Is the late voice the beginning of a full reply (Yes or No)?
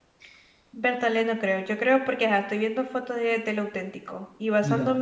No